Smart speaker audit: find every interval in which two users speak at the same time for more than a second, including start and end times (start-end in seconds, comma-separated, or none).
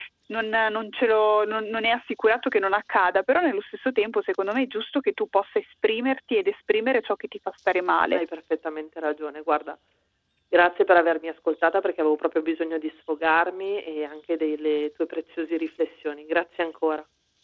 none